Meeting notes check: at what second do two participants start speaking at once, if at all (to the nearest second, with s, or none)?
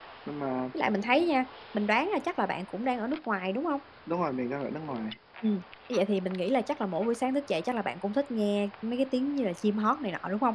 none